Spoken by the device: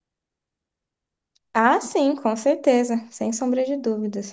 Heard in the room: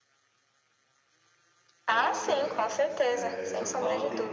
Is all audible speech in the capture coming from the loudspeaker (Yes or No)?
No